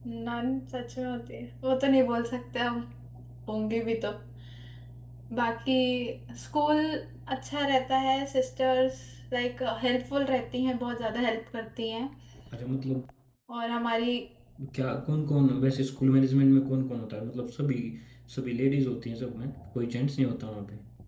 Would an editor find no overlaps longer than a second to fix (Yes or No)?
Yes